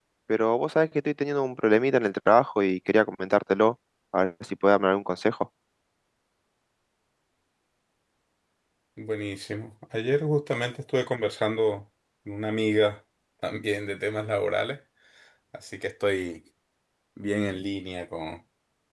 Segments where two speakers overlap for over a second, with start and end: none

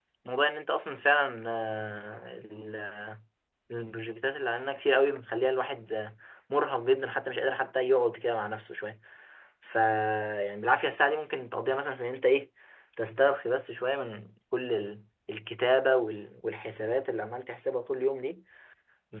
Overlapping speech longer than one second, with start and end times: none

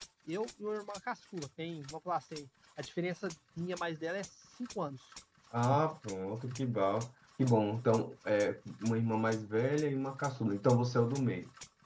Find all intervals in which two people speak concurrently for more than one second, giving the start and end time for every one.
none

